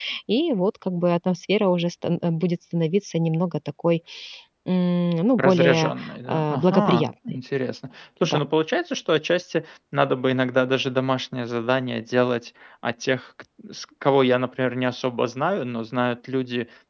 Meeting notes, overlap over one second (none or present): present